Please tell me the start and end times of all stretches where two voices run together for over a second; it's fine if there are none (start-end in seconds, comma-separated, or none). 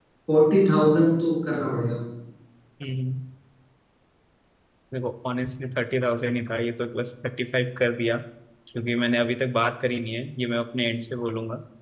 none